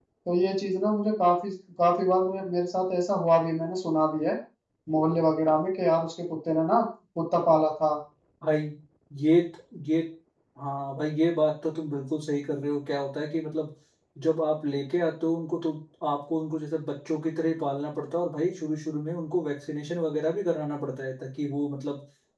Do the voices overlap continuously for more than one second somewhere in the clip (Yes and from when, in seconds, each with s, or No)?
No